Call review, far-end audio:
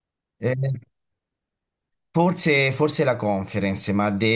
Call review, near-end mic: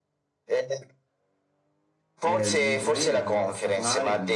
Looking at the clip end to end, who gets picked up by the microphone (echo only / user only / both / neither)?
both